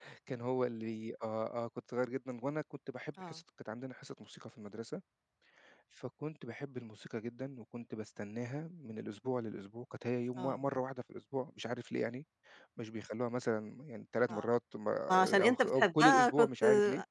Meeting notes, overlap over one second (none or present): present